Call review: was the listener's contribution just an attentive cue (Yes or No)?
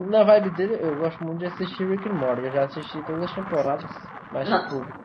Yes